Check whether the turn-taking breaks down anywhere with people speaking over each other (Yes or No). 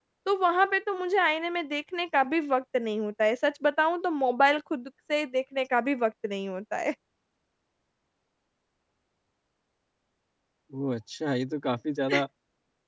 No